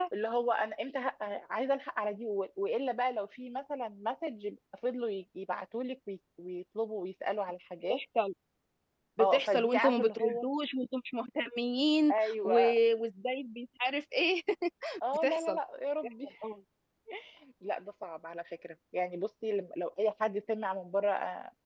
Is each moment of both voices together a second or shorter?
No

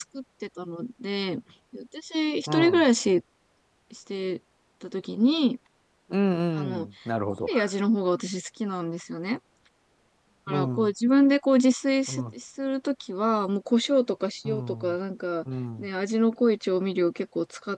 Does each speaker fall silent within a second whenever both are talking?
Yes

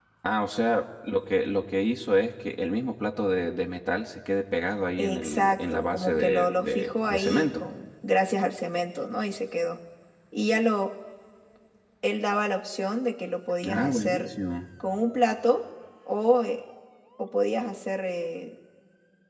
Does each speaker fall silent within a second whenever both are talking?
No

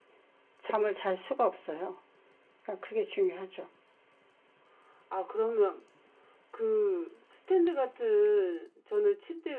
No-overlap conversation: Yes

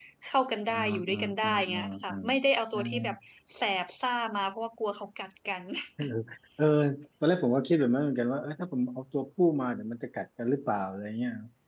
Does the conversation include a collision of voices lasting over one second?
Yes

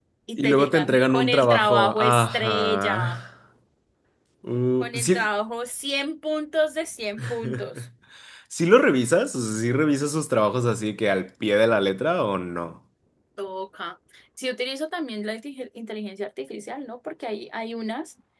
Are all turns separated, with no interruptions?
No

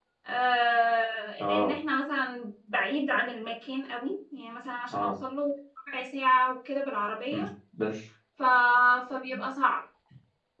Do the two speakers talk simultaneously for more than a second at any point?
No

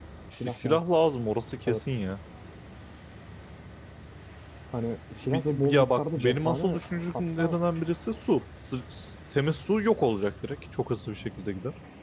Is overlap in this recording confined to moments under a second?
No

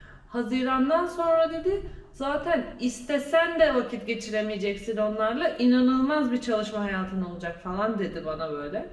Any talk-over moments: No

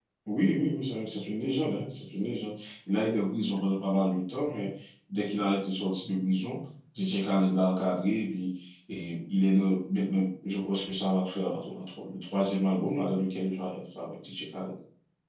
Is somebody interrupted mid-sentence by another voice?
No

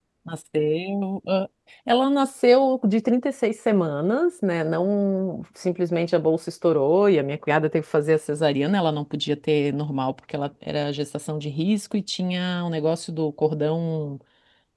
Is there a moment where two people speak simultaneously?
No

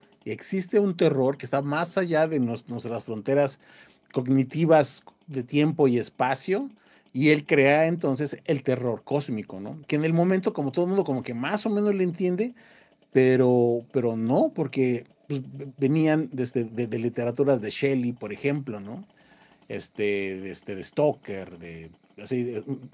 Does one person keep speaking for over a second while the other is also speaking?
No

